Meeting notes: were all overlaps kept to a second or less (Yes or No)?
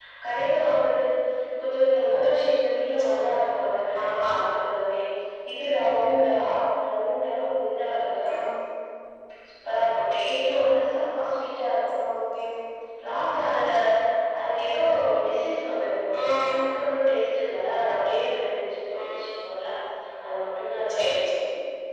Yes